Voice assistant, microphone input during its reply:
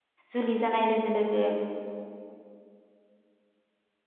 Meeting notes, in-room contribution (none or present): present